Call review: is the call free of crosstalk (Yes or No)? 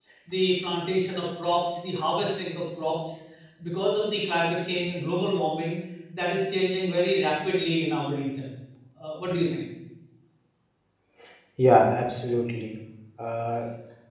Yes